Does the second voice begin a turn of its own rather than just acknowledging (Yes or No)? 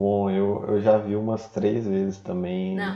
Yes